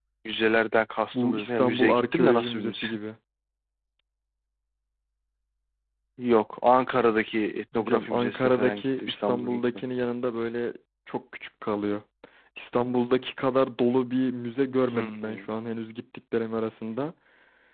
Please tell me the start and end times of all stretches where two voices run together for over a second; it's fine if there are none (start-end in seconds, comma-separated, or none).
1.1-2.8, 7.7-9.6